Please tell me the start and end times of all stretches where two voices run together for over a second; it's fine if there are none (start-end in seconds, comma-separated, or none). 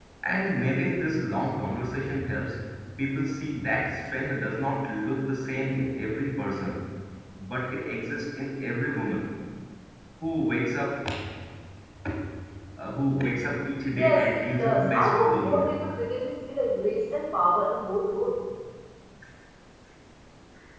13.9-15.8